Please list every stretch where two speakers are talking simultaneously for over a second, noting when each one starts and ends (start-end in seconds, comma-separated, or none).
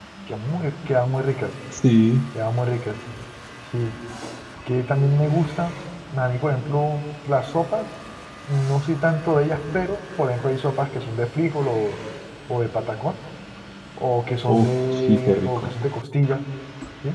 14.5-15.7